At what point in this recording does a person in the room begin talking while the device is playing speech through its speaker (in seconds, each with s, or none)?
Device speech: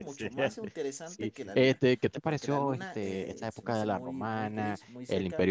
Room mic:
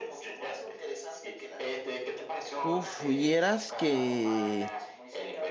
2.7 s